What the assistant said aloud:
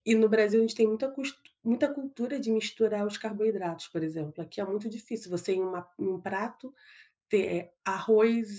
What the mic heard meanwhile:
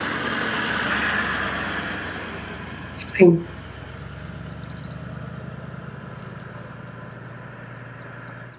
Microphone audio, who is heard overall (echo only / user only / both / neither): user only